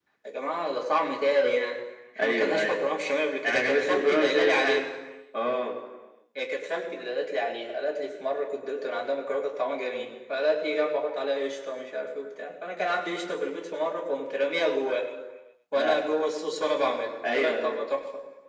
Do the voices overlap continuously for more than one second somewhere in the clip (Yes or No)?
Yes